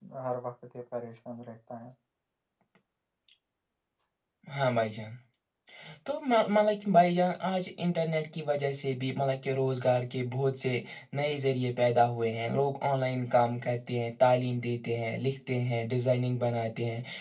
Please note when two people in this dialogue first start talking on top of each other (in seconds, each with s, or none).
none